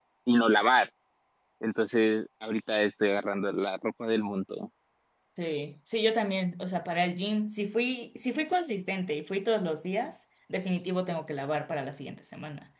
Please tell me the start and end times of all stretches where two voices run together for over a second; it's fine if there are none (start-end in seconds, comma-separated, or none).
none